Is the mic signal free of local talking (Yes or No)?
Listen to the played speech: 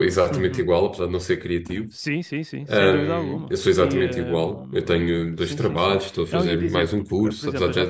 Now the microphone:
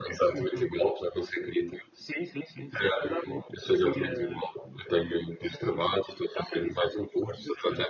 Yes